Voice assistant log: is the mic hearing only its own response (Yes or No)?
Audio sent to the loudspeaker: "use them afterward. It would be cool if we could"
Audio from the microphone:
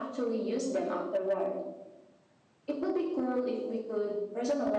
Yes